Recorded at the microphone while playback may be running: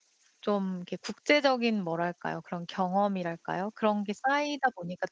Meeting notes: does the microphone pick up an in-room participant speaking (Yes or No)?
Yes